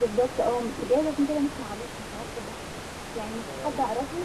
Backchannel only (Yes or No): Yes